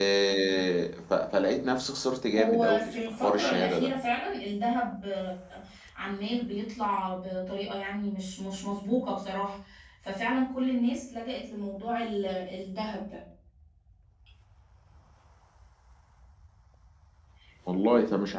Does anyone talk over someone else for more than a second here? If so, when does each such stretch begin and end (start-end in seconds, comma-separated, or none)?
2.4-3.9